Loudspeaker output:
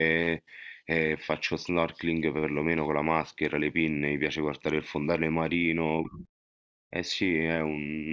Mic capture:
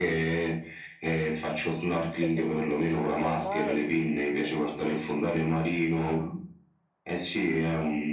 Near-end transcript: non so se tu lo fai mai.

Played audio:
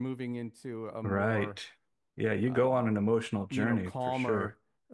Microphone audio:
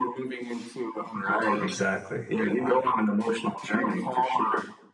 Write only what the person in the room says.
Exactly.

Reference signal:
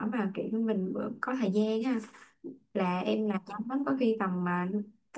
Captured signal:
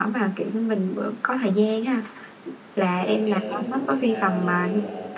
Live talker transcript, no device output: rồi chơi mấy môn thể thao dạng như là

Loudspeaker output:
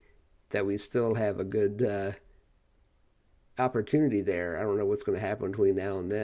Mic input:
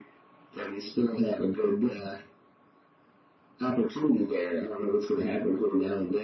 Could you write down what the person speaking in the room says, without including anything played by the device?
none

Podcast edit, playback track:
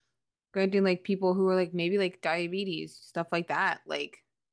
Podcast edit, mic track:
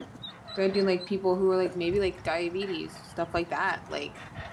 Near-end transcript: none

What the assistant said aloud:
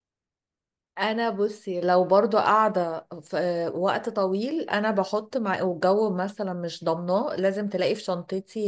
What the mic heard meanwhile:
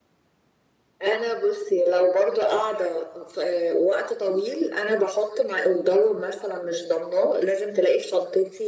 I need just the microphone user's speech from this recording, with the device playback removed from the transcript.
none

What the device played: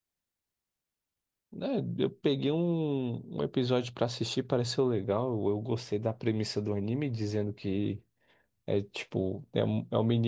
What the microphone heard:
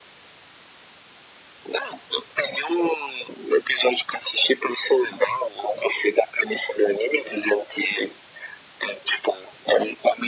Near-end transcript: none

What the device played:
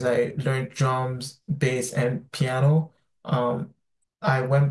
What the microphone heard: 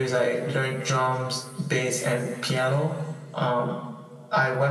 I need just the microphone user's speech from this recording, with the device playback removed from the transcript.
none

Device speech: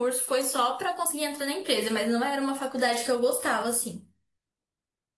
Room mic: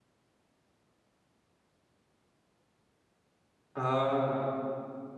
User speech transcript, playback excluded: Ah,

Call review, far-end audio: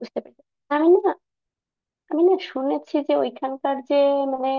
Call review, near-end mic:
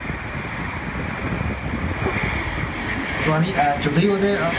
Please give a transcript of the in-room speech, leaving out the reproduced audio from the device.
তো আমি আহ, যতই ওদের

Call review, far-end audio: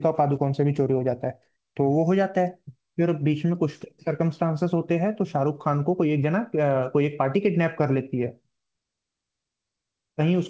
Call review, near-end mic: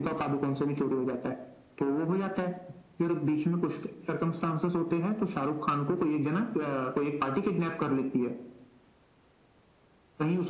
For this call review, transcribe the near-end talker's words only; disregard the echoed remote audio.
none

